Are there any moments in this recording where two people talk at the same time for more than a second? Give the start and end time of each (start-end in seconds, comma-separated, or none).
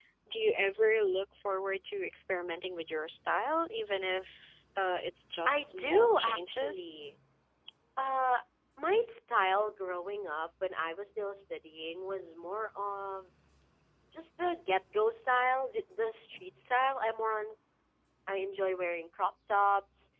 5.5-6.9